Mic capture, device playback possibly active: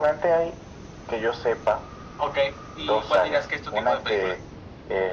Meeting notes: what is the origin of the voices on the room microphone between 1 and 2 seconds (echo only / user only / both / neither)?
echo only